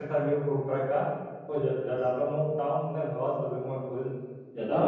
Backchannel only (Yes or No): No